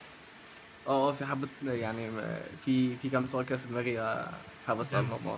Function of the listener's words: taking over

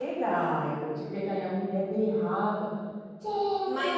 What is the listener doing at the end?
taking over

